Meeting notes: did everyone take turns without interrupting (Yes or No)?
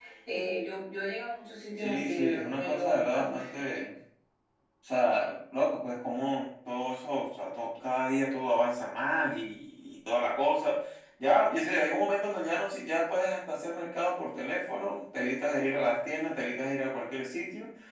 No